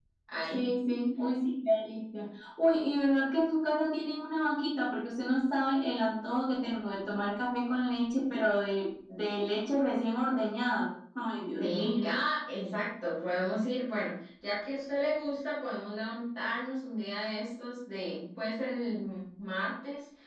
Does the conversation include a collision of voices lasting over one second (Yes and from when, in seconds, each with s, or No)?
No